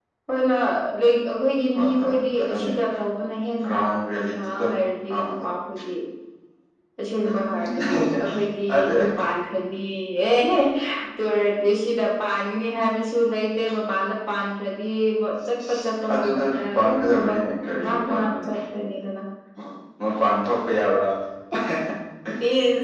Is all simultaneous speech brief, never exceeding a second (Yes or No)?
No